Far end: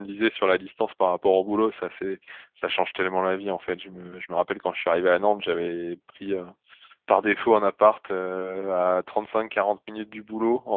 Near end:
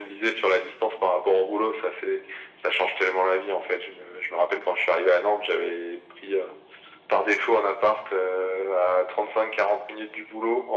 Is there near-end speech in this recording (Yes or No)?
No